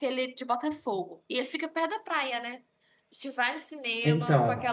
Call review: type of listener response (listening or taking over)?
listening